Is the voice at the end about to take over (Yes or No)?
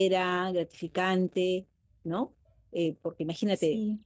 No